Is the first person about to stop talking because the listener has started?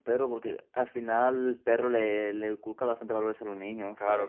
Yes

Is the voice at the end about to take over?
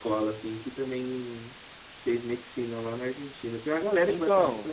Yes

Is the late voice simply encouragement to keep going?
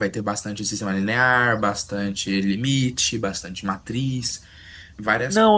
No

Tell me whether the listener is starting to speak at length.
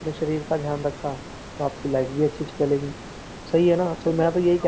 No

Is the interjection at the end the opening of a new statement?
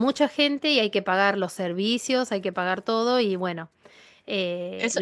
Yes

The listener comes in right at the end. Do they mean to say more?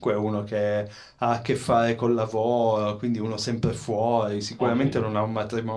No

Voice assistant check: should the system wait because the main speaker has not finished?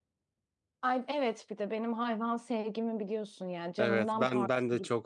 No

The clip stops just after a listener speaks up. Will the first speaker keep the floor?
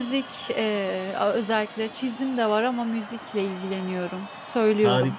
No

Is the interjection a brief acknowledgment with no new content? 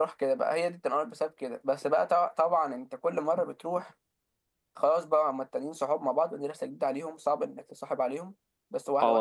No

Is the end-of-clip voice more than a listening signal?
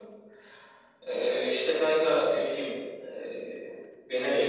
No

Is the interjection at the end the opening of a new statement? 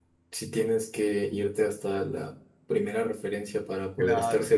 No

